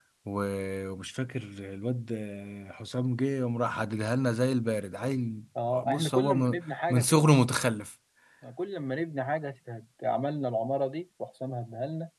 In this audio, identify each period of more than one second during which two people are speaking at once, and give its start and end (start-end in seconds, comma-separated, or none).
5.8-7.2